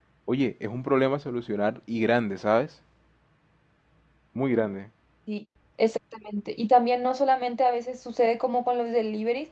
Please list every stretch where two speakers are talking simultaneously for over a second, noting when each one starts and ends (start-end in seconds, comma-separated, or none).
none